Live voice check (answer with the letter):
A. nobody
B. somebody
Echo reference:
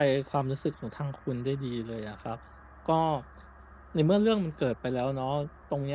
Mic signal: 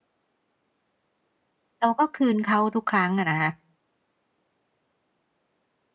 B